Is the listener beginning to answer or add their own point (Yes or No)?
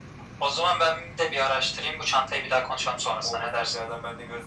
Yes